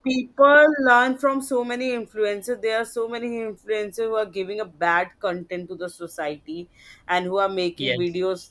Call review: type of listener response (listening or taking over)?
listening